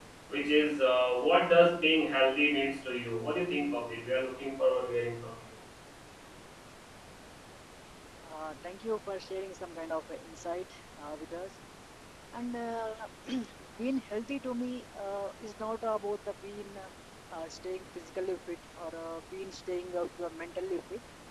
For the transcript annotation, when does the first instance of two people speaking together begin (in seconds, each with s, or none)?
none